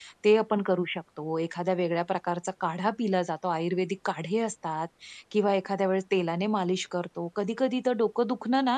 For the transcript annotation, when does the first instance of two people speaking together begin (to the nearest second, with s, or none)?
none